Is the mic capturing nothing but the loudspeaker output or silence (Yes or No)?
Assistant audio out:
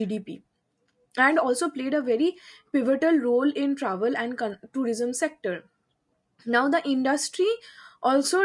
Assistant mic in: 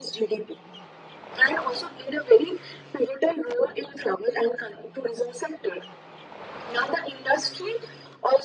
Yes